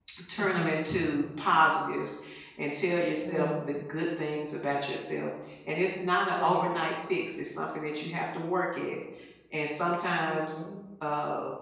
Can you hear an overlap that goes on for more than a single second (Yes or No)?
No